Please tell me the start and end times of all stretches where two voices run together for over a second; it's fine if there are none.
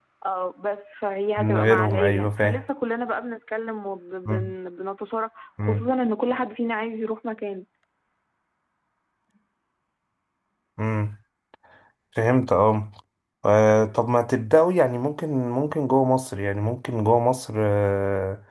1.4-2.6

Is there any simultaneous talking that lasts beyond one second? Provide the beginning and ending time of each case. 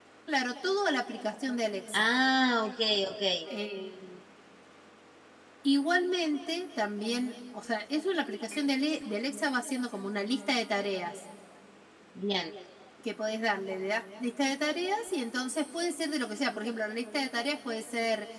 none

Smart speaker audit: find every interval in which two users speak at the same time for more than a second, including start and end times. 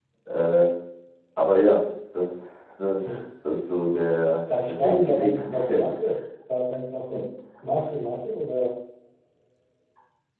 4.7-5.9

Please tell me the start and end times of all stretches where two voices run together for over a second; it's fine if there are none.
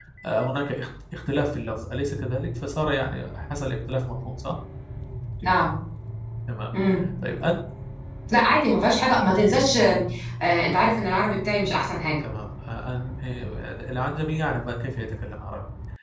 none

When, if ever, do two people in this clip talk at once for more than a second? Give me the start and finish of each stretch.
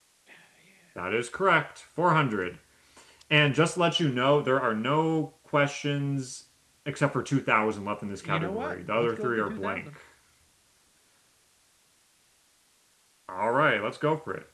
8.2-9.9

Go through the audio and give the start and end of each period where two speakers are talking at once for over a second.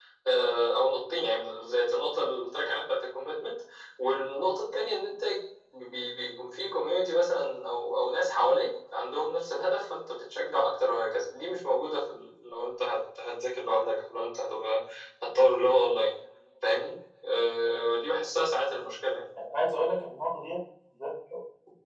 none

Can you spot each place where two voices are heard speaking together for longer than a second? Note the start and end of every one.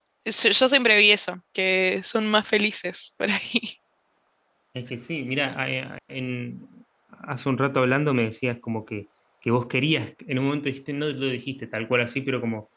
none

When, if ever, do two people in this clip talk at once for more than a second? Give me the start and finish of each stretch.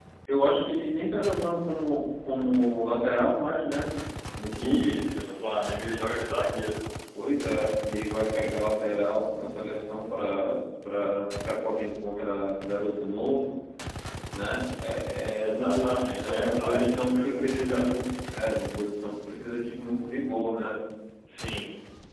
15.4-17.9

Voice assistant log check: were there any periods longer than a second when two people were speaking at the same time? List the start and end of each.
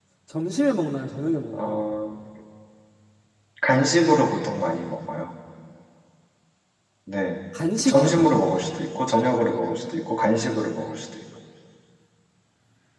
none

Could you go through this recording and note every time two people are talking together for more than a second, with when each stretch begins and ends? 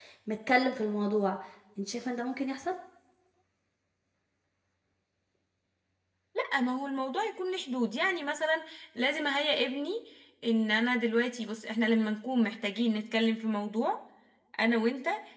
none

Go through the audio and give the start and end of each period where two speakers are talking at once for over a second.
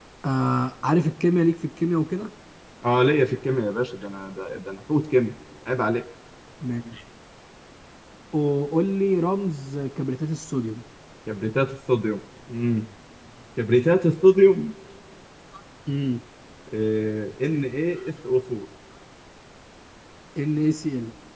none

